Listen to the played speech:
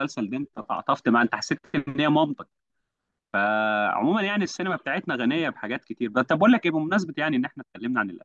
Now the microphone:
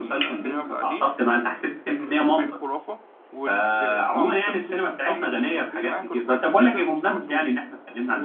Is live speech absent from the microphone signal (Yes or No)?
No